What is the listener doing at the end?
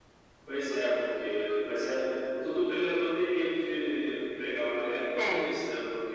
listening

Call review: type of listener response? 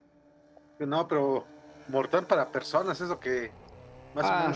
taking over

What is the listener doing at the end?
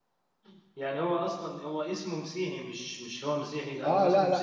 taking over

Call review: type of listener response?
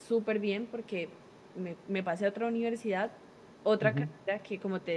listening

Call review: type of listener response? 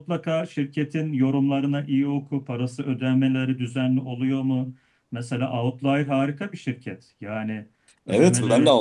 taking over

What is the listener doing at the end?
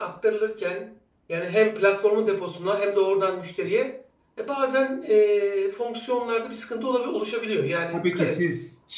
taking over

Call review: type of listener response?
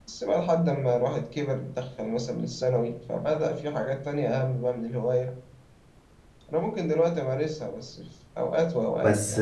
taking over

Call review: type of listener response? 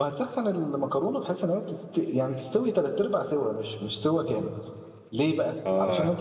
listening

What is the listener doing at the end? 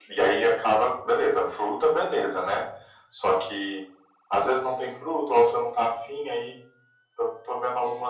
listening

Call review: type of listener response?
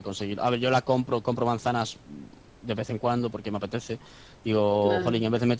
listening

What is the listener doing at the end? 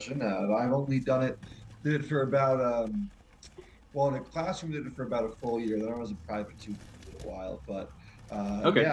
listening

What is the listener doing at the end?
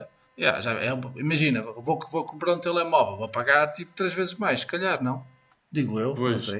taking over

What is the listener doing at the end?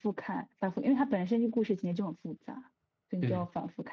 listening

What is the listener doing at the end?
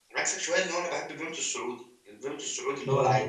taking over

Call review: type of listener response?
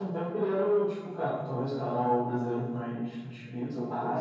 taking over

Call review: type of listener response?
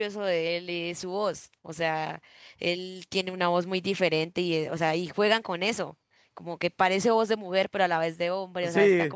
taking over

